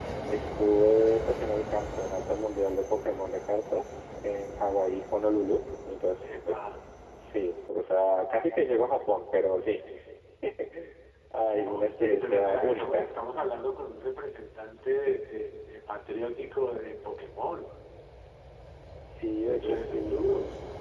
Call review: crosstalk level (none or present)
present